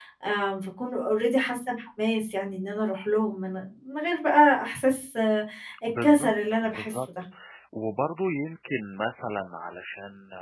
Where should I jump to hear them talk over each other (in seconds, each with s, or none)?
5.9 s